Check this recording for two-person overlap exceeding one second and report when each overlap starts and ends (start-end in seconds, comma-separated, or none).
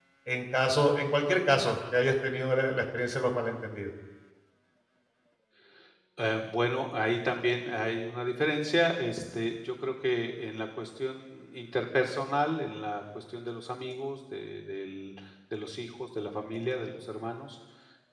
none